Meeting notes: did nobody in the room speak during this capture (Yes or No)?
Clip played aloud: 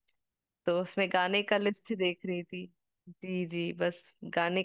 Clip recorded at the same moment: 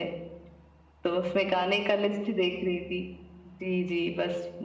Yes